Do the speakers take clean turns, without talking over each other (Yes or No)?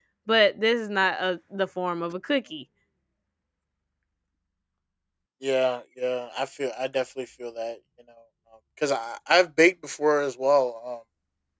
Yes